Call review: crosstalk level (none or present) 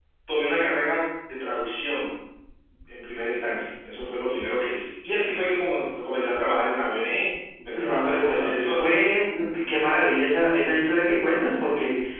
present